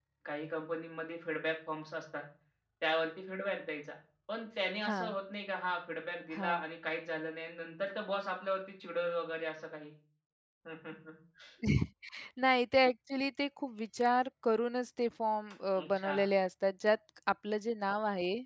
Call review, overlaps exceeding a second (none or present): none